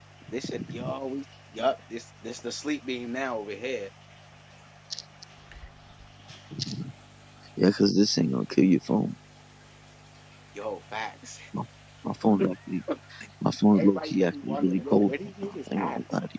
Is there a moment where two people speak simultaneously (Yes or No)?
Yes